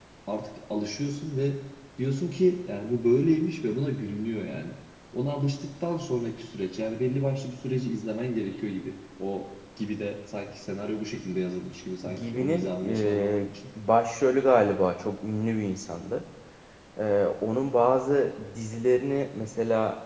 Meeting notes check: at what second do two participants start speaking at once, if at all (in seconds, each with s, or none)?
12.0 s